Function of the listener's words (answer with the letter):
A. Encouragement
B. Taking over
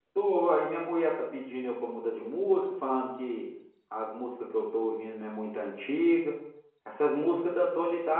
A